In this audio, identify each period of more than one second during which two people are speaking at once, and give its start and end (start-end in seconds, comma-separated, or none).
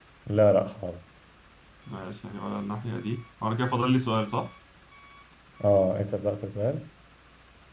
none